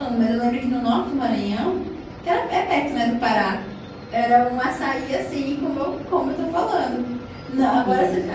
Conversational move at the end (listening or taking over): listening